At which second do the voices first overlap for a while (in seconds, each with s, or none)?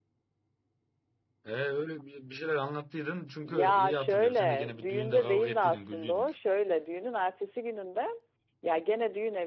3.4 s